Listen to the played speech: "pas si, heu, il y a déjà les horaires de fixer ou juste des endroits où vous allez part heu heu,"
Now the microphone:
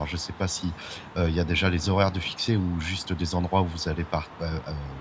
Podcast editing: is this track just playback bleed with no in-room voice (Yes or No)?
Yes